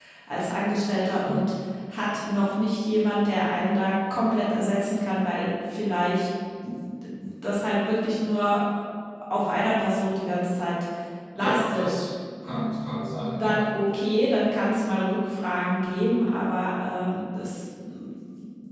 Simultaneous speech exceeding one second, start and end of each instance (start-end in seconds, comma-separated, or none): none